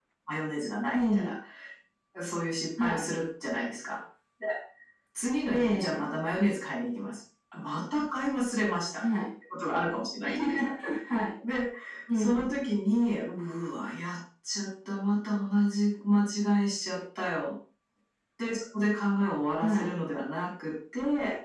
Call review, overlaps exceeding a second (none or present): none